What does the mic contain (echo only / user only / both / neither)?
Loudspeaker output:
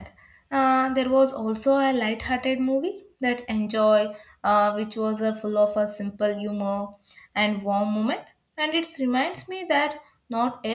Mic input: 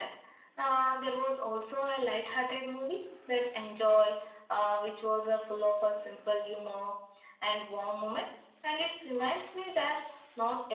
echo only